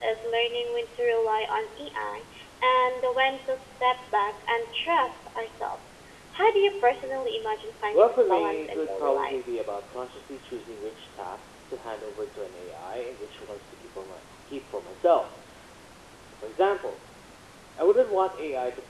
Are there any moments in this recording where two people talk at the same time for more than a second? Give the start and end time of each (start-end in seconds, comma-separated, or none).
7.9-9.4